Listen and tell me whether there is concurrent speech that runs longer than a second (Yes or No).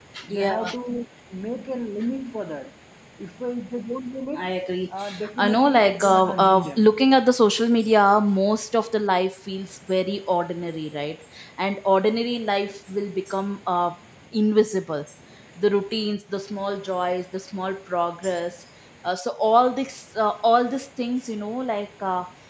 Yes